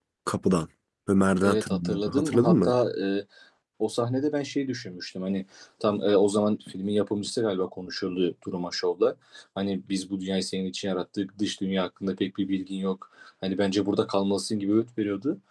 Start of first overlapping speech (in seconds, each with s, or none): 1.4 s